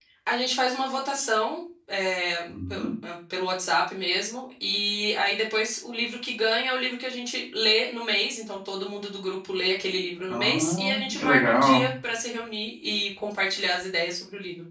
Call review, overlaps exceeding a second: present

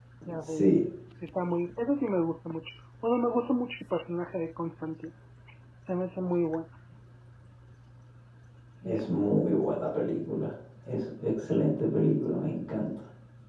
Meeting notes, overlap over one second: none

